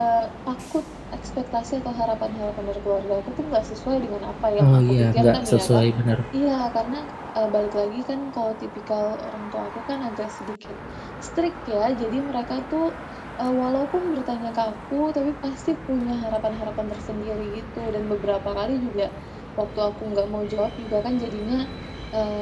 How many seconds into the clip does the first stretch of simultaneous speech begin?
5 s

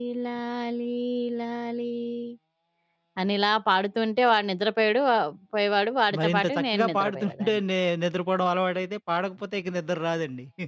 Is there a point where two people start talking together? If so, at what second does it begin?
6 s

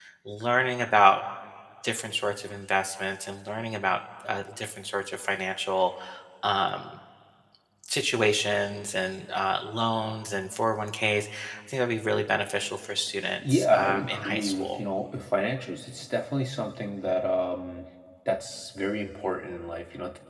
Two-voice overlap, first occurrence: 13 s

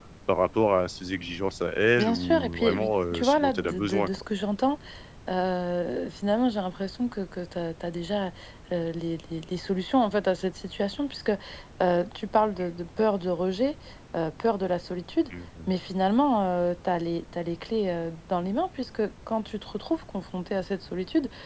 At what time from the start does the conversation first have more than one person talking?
2 s

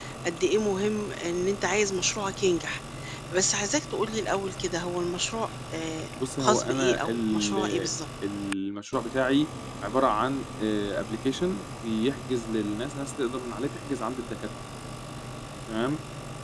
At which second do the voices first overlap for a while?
6 s

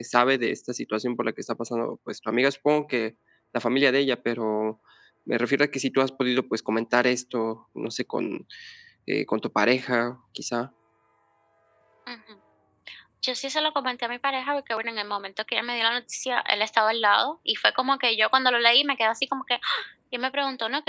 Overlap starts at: none

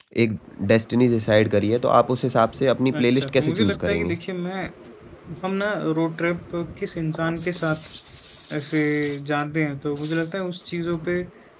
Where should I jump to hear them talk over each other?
3 s

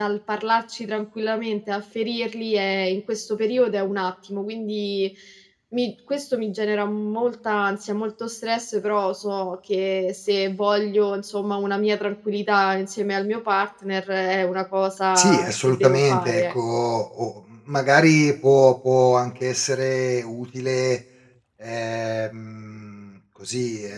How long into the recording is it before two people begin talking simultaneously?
15 s

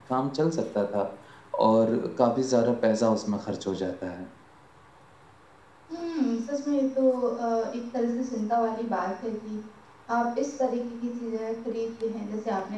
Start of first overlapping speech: none

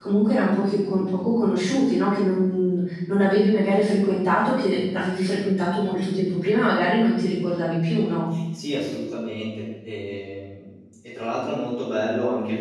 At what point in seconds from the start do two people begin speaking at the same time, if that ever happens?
none

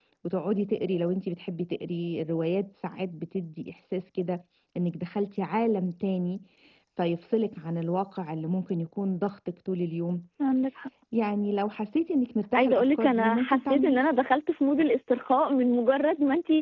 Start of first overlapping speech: 13 s

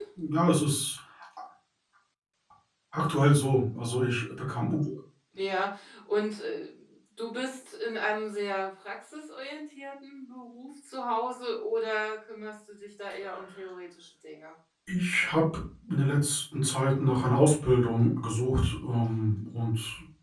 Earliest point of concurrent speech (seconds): none

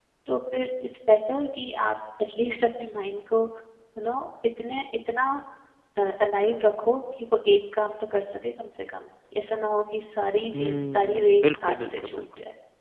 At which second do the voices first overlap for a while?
11 s

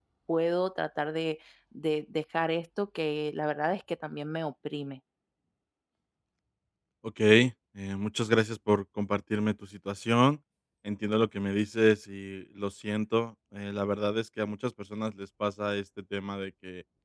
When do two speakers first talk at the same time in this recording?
none

